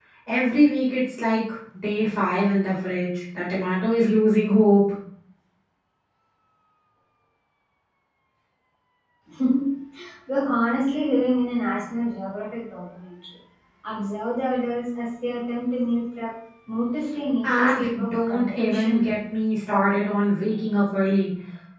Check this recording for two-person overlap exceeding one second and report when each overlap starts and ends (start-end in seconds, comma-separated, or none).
17.4-19.1